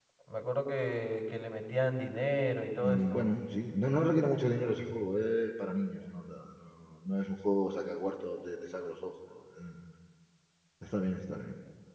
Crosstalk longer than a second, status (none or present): none